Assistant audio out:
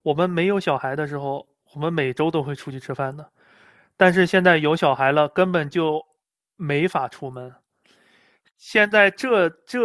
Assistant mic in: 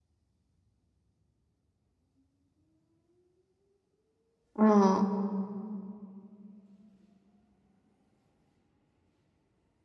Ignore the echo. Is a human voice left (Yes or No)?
Yes